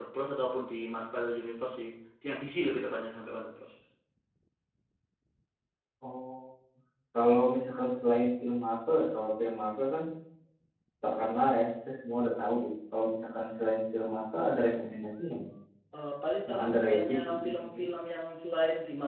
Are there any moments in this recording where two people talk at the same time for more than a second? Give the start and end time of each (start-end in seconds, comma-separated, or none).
16.5-17.8